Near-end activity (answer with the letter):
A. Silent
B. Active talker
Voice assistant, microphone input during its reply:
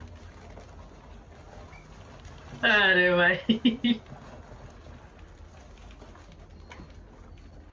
B